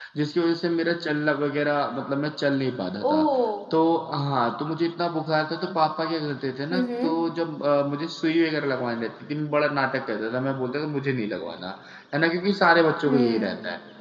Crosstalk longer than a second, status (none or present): none